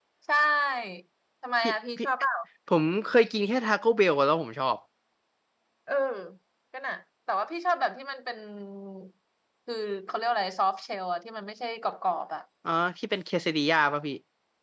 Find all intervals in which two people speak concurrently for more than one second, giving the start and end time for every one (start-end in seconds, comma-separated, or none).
none